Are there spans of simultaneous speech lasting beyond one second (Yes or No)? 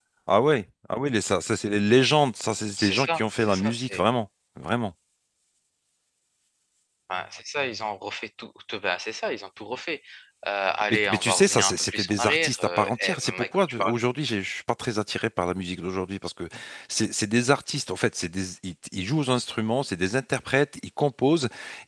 Yes